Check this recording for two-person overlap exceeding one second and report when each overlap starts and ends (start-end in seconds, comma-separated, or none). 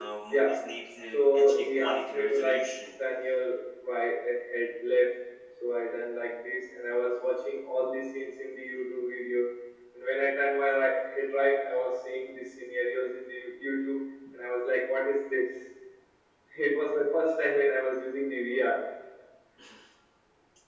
1.1-2.7